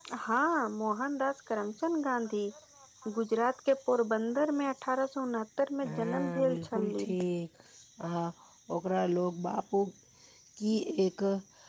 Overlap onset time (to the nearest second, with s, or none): 6 s